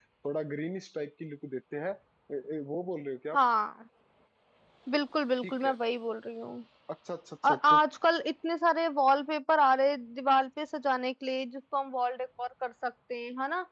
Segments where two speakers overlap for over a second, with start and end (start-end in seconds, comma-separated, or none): none